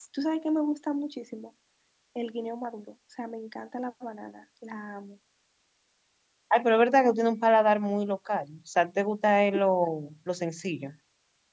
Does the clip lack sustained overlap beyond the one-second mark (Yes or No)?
Yes